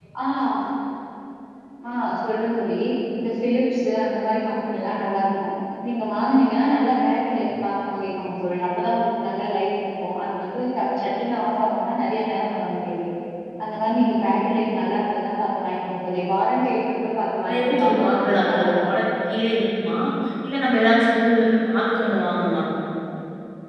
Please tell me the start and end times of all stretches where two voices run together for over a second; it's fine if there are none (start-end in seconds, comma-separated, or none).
17.5-18.9